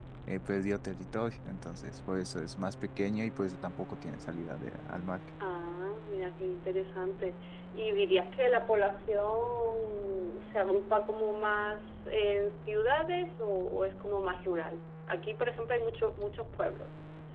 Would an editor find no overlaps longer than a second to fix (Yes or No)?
Yes